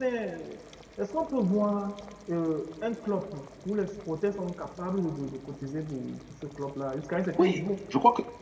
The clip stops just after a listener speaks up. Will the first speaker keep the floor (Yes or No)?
No